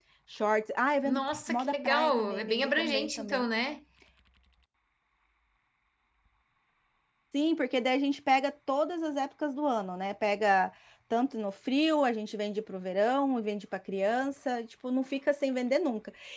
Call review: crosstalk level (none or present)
present